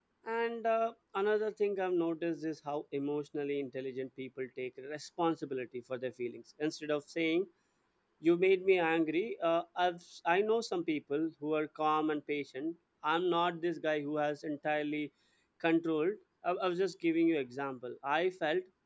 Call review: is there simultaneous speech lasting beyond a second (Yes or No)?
No